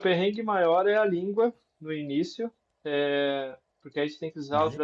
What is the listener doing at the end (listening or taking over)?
listening